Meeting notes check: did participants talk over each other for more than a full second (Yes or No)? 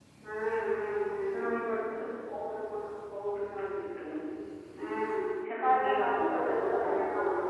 Yes